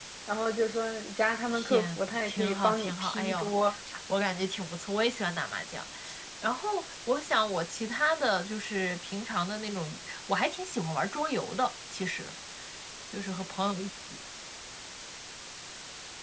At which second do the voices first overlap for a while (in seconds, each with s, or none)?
1.5 s